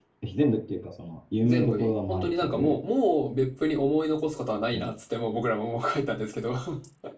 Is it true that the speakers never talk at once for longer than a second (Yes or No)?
No